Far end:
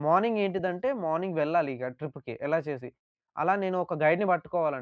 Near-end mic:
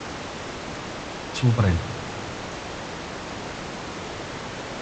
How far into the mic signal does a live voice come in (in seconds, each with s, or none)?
1.4 s